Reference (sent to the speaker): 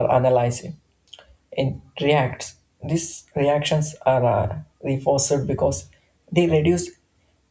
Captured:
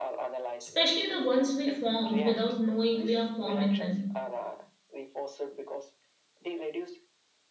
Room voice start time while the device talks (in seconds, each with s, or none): 0.6 s